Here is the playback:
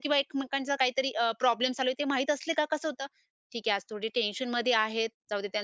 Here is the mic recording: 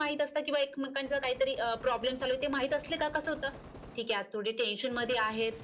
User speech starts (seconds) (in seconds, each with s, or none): none